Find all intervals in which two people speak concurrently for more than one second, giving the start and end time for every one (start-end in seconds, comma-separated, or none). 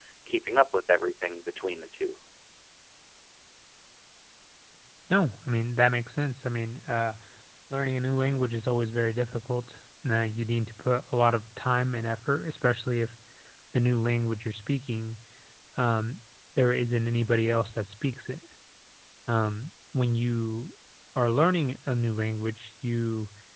none